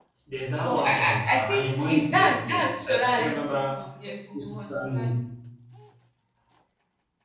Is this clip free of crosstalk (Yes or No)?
No